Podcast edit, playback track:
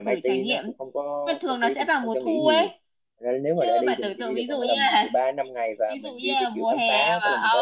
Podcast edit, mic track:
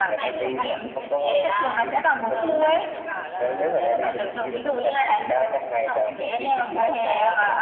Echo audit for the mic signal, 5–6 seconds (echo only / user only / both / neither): both